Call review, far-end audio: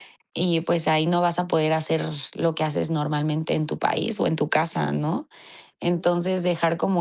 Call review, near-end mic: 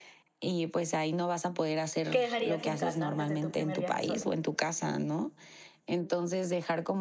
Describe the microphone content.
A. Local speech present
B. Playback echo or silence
A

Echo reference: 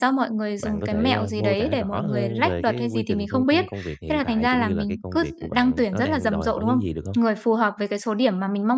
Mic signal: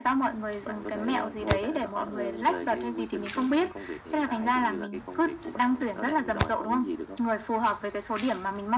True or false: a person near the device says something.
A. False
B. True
A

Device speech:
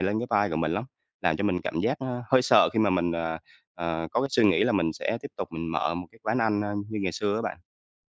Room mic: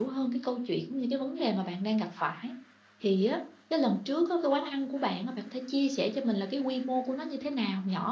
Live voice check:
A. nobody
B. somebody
B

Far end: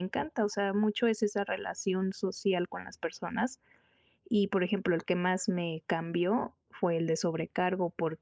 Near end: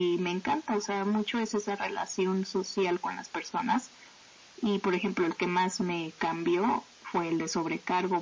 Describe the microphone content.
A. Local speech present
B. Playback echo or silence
B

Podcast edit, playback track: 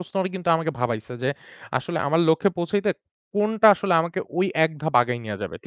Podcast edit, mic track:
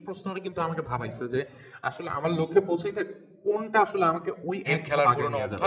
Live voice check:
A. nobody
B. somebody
B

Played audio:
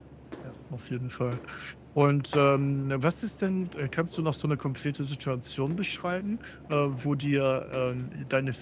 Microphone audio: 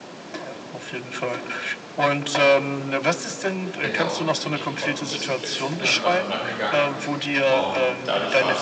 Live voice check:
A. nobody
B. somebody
B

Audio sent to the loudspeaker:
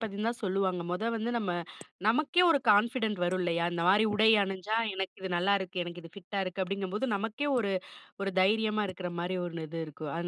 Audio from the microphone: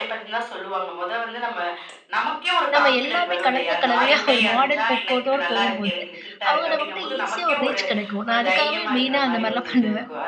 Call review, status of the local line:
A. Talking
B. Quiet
A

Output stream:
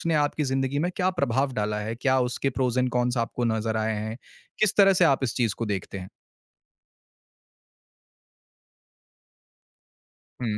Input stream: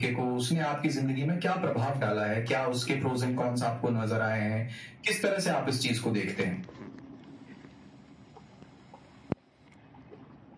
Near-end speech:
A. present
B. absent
B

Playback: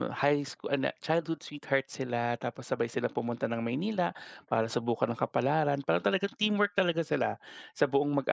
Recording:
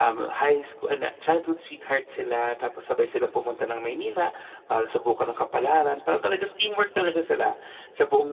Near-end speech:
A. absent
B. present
A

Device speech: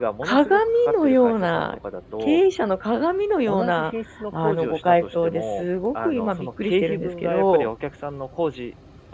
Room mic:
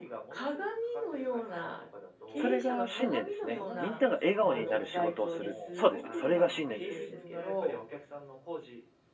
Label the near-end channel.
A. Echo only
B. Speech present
B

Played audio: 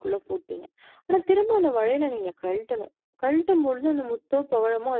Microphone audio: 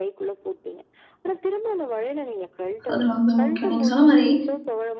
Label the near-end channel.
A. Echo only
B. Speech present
B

